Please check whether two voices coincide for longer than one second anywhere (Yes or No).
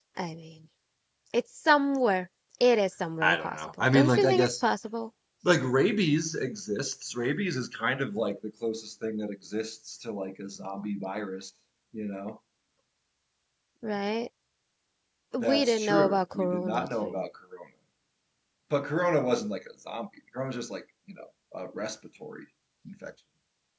Yes